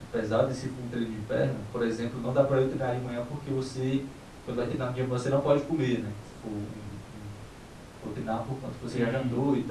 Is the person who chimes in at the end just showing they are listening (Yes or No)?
Yes